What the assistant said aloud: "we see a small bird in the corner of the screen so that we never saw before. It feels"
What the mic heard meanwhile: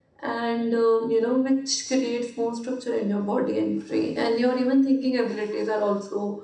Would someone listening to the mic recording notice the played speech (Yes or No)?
No